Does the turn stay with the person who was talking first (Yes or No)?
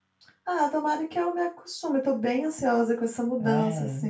Yes